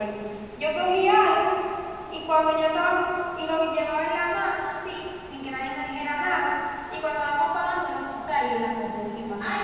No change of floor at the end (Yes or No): No